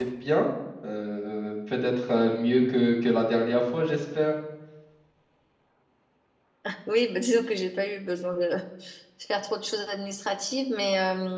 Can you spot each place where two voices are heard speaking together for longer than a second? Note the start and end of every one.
none

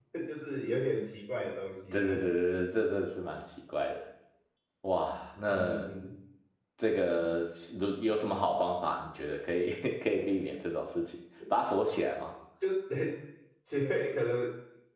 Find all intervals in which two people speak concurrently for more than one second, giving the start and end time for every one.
none

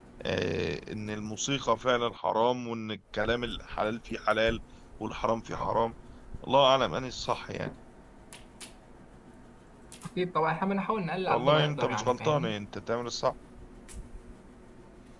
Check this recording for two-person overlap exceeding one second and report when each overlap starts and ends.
11.3-12.5

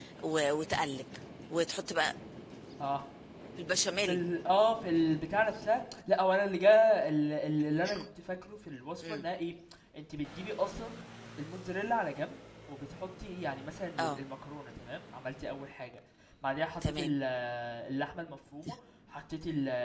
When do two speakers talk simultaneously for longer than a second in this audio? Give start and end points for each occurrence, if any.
none

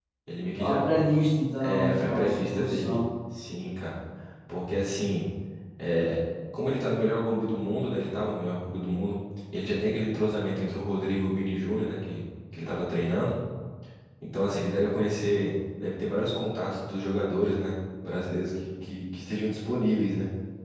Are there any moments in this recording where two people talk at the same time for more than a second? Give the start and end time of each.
1.6-3.0

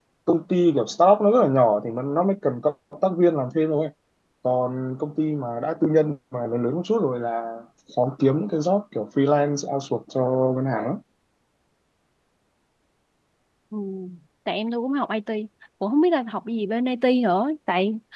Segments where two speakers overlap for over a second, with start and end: none

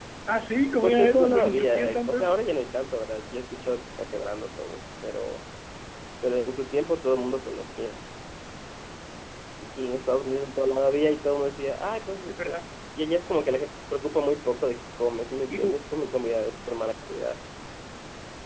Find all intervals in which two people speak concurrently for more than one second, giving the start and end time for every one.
0.8-2.4

